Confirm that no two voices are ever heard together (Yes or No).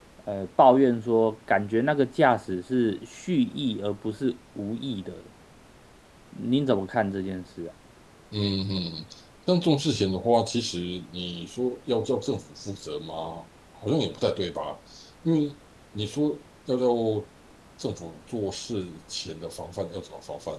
Yes